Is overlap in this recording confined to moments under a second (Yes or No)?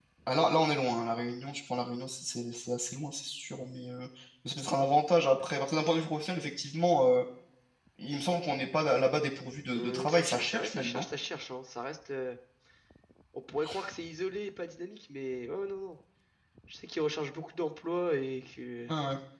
No